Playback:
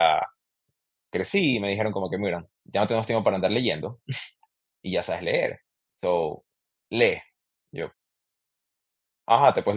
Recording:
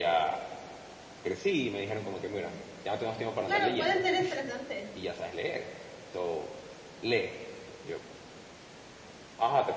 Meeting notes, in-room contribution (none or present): present